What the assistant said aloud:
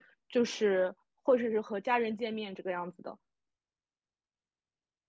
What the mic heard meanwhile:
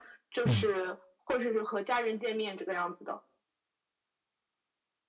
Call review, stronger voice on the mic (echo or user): user